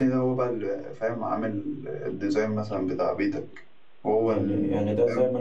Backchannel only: No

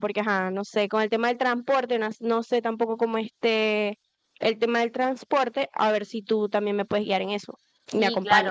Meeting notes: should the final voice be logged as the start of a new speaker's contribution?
Yes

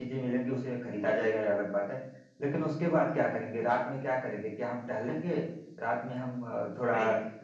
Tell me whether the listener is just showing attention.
No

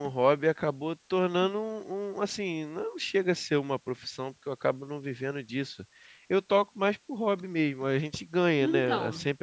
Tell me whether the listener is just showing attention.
Yes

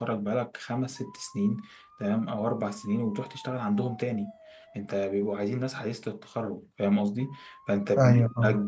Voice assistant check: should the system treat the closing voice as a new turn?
No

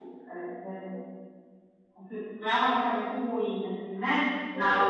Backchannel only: No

